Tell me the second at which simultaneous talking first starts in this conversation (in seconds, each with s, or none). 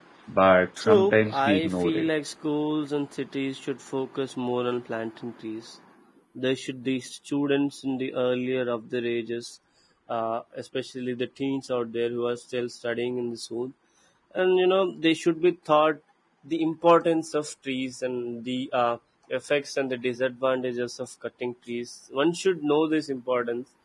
0.8 s